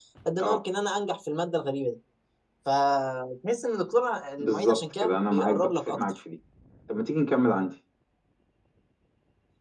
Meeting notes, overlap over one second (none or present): present